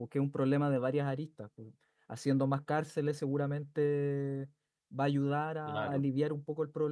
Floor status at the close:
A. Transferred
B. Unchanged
B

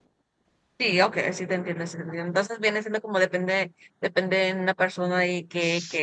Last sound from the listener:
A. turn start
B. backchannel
B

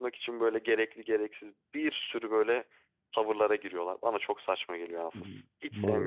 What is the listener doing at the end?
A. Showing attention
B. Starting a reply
B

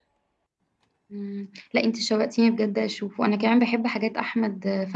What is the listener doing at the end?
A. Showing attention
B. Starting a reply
A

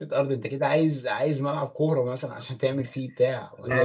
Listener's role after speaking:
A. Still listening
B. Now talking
A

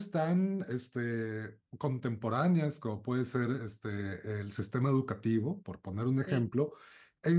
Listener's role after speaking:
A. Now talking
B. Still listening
B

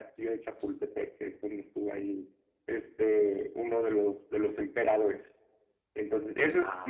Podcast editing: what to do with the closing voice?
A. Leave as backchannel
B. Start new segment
A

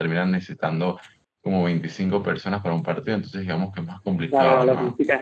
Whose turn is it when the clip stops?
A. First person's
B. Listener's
B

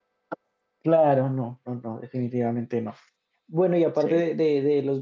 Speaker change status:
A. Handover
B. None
B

